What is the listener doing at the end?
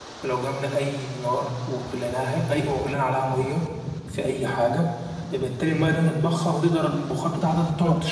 taking over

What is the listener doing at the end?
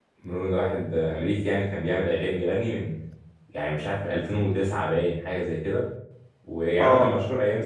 listening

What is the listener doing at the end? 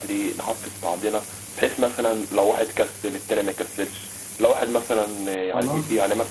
listening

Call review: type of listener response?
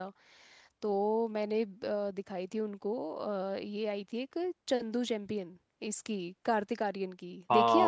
taking over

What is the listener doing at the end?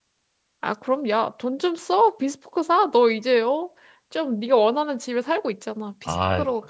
taking over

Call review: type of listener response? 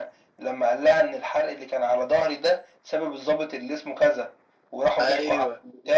listening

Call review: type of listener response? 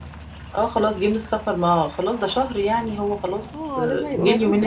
taking over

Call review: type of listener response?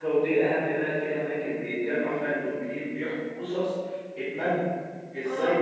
listening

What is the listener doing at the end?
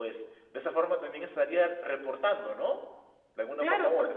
taking over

